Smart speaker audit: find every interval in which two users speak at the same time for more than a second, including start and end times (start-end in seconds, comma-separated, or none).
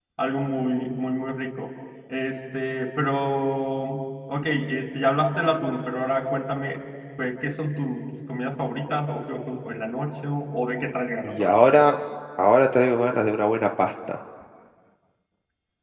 none